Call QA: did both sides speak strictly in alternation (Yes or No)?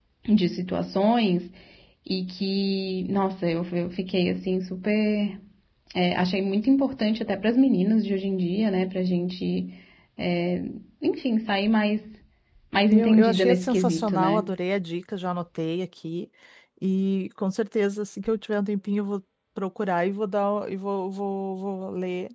No